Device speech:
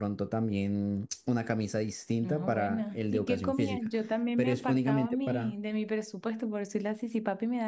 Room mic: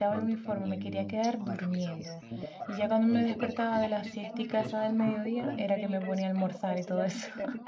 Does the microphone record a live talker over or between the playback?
Yes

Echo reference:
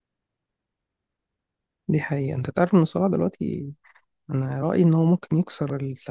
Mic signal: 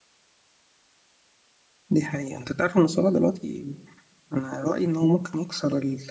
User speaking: No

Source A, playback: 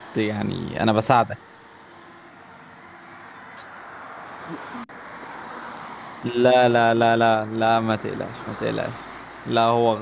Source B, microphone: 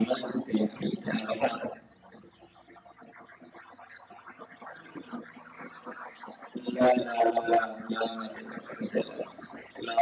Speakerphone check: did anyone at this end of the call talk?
No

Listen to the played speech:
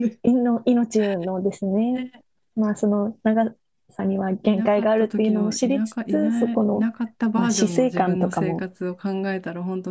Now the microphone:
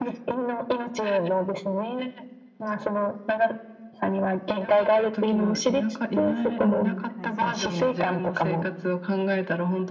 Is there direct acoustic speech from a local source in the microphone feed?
Yes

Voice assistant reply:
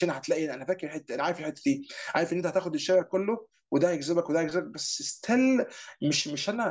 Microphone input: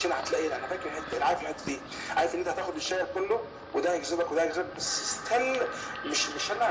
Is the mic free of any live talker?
Yes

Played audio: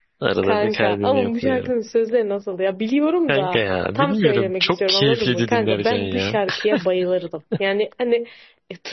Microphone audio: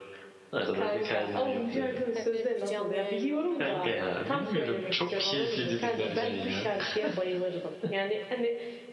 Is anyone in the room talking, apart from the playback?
Yes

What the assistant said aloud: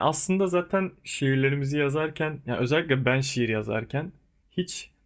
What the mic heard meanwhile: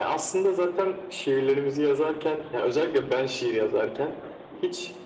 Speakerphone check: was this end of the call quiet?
Yes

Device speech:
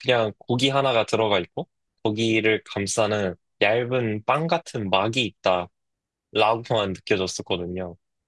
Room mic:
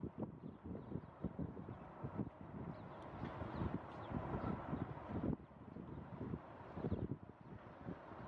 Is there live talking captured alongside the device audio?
No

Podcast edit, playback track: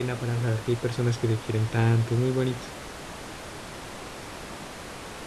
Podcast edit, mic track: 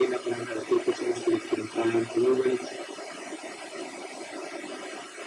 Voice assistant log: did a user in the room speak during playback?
No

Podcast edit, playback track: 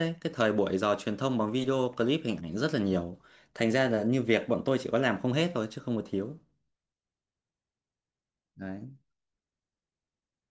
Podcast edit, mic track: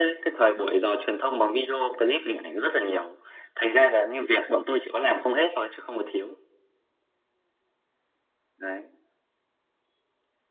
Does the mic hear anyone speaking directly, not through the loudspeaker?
No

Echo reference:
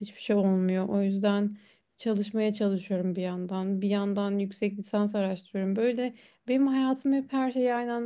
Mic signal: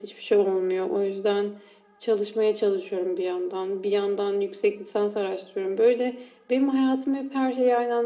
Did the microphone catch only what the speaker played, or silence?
Yes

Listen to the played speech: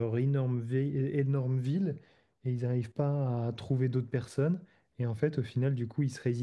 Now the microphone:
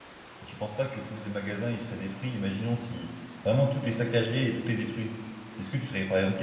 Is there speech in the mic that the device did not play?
Yes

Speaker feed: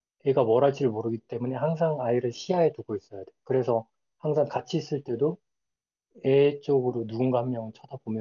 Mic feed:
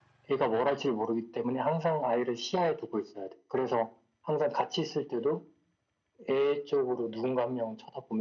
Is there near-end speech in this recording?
No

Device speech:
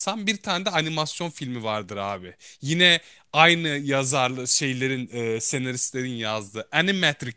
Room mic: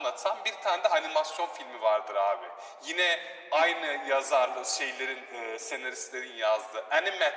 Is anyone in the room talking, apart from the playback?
No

